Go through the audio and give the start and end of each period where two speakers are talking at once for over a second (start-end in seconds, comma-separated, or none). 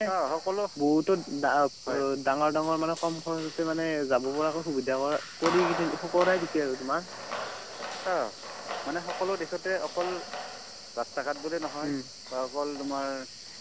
none